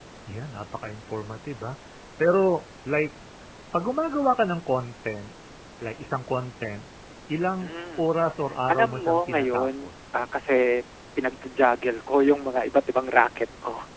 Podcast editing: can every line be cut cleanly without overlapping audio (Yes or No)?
No